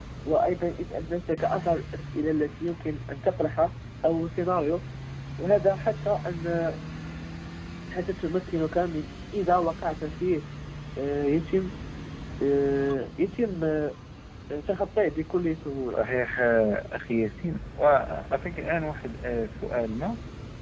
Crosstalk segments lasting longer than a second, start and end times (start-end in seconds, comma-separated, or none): none